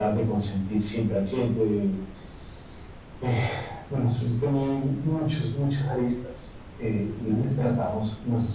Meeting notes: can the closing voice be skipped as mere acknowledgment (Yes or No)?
Yes